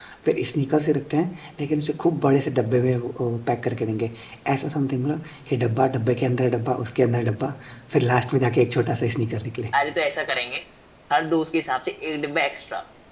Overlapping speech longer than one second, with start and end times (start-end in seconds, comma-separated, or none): none